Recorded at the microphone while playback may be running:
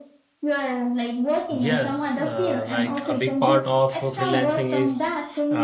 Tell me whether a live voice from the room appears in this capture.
Yes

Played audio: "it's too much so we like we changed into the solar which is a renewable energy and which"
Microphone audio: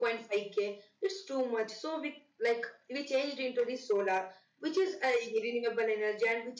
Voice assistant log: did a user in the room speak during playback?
No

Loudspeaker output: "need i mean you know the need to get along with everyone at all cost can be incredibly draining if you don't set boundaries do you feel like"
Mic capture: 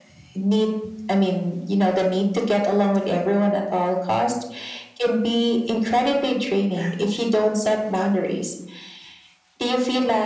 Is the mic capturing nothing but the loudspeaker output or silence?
Yes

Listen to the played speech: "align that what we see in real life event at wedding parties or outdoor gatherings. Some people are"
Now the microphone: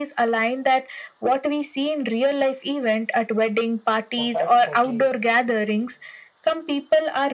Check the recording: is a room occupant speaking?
Yes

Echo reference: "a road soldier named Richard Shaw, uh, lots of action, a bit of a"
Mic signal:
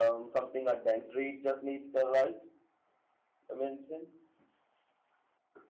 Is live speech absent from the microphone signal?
No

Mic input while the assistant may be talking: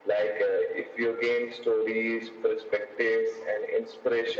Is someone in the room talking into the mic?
No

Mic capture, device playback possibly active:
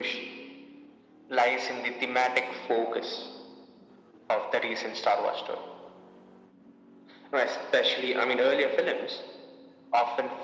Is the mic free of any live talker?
Yes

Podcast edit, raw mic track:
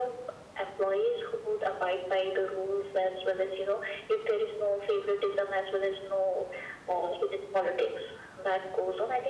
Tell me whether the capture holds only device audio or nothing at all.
Yes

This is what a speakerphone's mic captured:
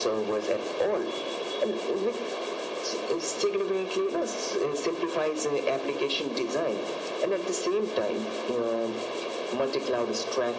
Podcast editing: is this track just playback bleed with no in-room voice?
Yes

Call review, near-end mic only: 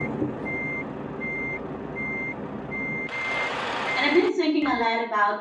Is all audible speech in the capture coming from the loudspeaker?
No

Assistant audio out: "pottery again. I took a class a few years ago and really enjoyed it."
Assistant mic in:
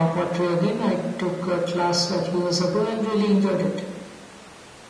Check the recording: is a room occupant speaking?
No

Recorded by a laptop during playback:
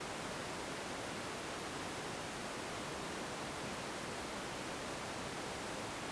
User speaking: No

